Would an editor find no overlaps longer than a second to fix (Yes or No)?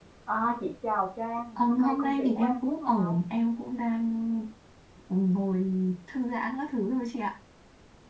No